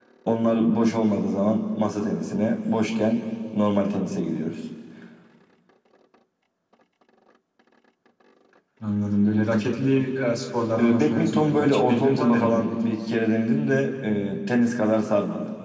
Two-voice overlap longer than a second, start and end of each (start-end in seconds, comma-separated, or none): 10.8-12.8